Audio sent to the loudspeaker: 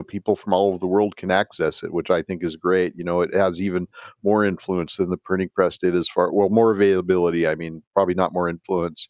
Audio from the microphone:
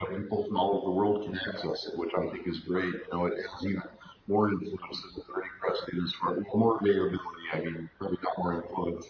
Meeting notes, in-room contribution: none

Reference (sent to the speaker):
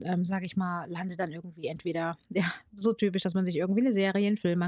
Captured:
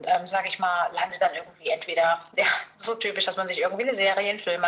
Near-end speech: none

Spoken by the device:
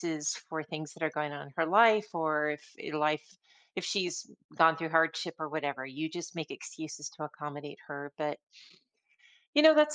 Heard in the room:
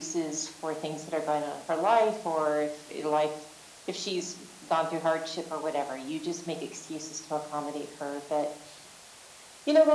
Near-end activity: none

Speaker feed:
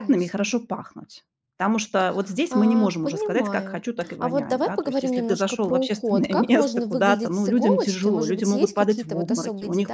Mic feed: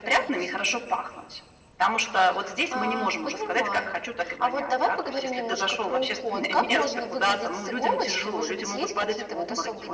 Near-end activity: none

